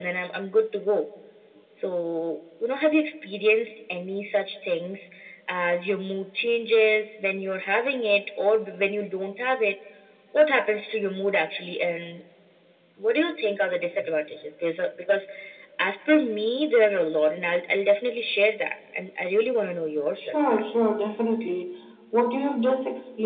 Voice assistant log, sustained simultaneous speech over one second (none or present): none